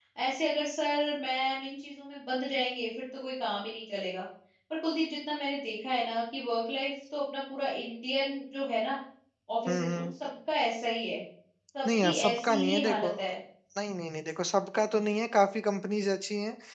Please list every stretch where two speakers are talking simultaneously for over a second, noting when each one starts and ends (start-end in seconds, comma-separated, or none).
11.8-13.1